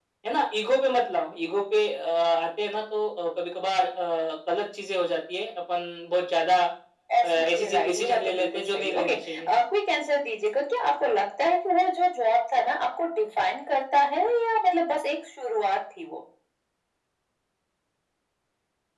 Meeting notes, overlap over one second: present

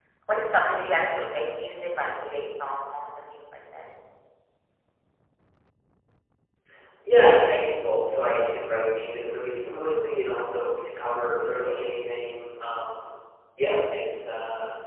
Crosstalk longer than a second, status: none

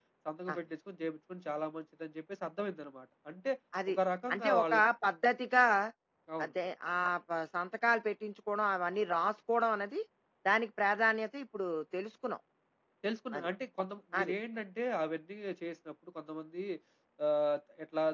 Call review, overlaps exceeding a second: none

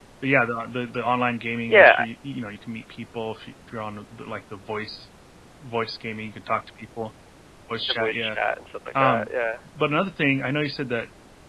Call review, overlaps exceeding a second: none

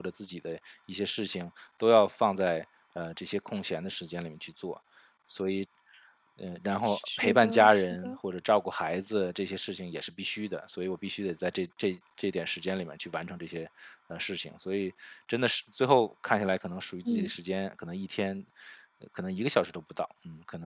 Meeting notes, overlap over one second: present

